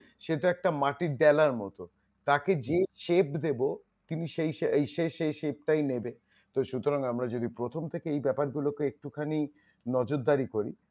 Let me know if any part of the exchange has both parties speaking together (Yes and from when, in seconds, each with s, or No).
No